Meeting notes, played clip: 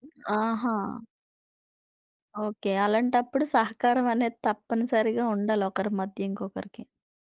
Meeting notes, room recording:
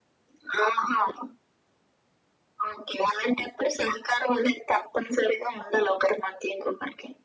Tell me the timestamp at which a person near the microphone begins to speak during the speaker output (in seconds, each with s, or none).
none